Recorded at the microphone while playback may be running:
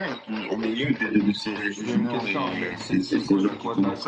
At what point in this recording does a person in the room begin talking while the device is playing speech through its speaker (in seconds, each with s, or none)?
1.8 s